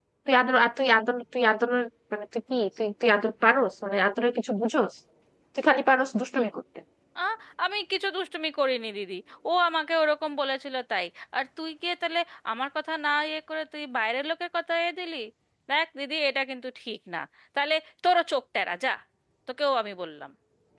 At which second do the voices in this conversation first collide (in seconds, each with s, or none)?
none